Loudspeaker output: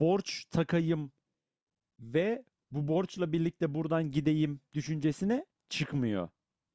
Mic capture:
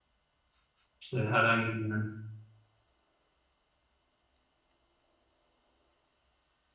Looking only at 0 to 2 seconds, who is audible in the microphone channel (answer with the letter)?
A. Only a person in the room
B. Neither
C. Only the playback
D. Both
A